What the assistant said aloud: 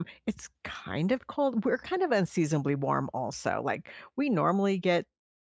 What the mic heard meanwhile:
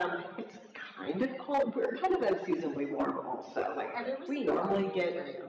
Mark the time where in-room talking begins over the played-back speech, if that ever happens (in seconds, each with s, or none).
3.9 s